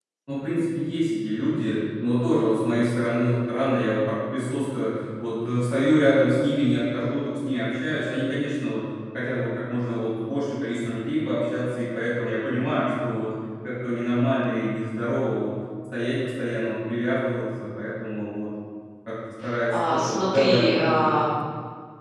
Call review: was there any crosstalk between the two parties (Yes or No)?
Yes